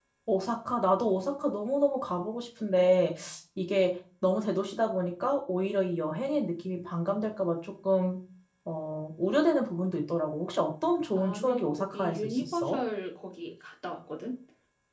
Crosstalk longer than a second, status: present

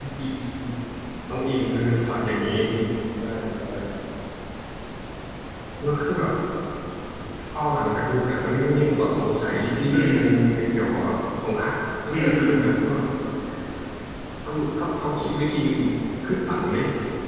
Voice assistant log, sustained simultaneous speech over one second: none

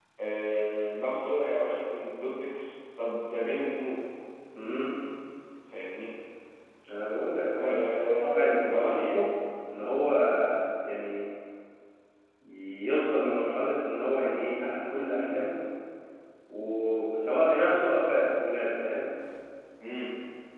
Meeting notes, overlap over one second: present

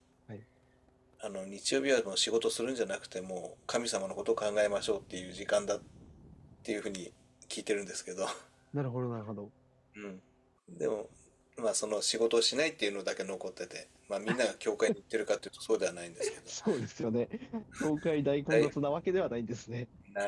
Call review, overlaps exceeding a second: none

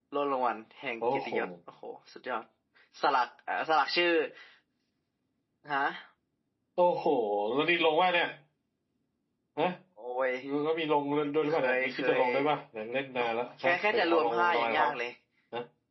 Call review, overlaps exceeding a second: present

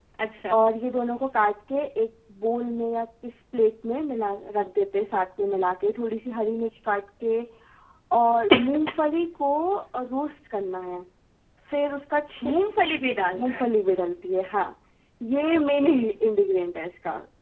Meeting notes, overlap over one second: none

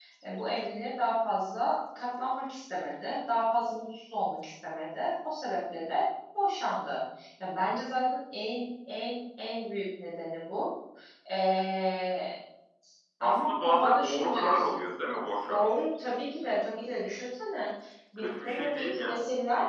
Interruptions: present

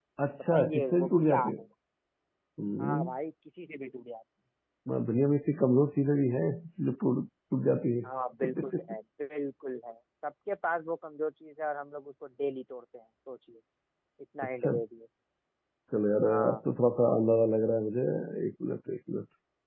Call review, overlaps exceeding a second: present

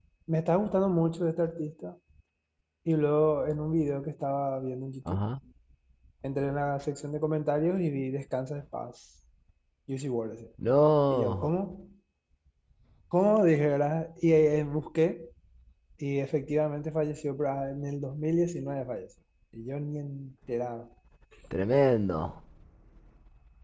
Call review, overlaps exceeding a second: none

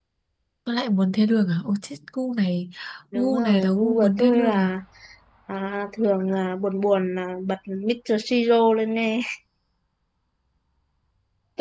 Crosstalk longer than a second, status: present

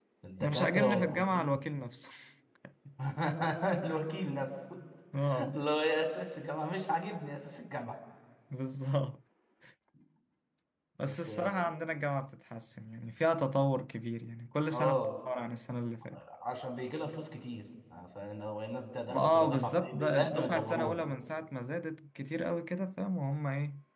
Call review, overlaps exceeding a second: present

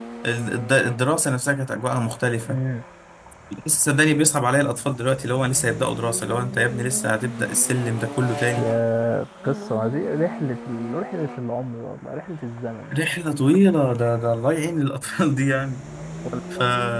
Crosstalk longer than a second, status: none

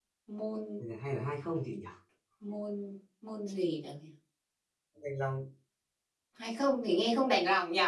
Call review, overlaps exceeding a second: none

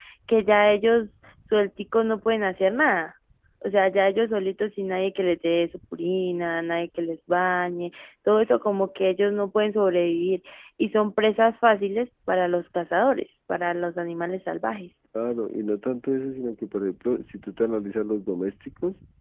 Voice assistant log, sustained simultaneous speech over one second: none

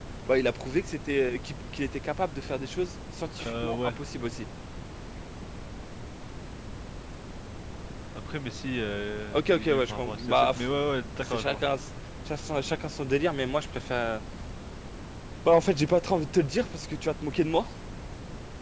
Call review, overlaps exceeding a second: present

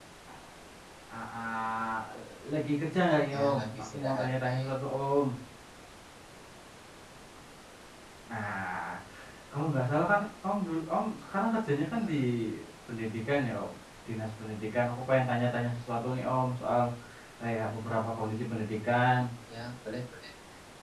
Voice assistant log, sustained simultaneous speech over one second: present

